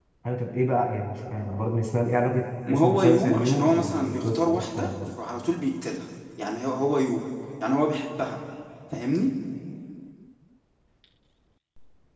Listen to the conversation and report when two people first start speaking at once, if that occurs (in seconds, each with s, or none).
2.6 s